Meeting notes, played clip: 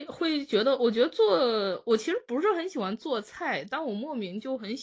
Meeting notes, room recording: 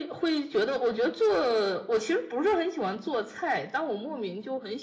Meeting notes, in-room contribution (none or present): none